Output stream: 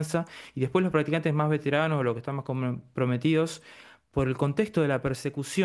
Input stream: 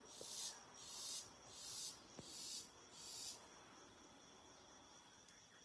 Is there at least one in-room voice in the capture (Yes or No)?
No